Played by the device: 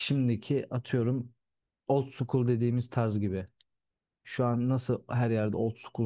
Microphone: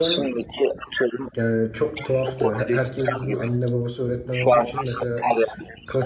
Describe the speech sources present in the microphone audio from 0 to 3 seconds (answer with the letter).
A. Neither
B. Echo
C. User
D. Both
D